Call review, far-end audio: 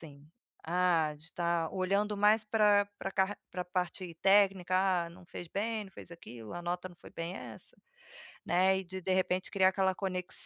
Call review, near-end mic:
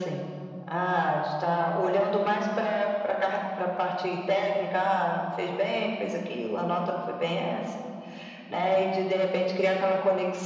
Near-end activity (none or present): none